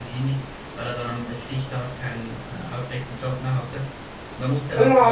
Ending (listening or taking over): taking over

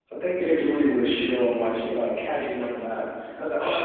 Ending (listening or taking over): listening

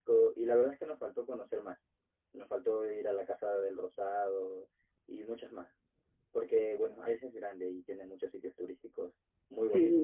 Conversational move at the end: taking over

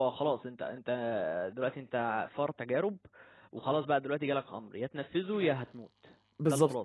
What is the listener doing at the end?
taking over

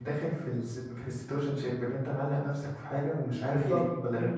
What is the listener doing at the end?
taking over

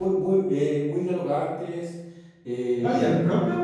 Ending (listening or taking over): taking over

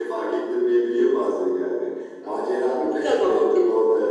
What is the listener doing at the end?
listening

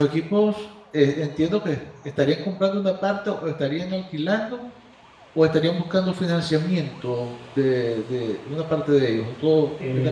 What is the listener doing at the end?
taking over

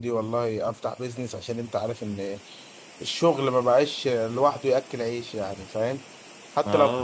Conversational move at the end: taking over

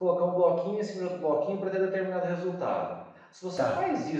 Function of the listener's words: listening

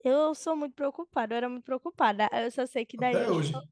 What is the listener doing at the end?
listening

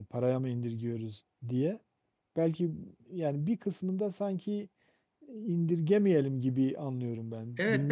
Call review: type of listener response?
taking over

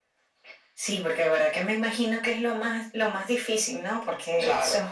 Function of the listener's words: listening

